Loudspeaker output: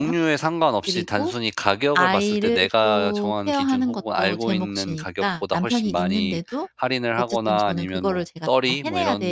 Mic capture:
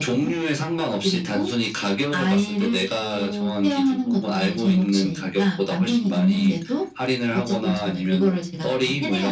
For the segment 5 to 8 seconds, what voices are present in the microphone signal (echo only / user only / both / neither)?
echo only